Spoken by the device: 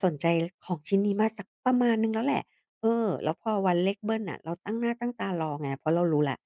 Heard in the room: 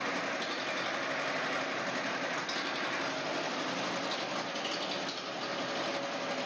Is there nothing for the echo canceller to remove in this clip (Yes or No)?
Yes